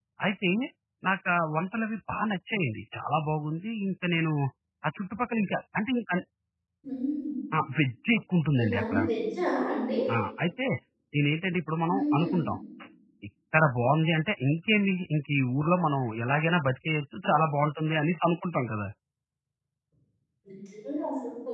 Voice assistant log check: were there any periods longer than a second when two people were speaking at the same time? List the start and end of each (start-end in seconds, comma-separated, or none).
none